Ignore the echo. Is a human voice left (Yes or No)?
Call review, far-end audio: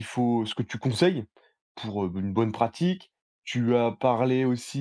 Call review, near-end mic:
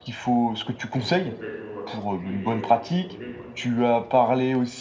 Yes